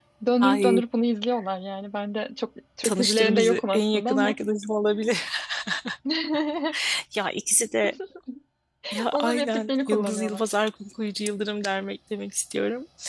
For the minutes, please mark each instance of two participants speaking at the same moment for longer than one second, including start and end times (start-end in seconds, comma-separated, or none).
2.8-4.4, 9.1-10.4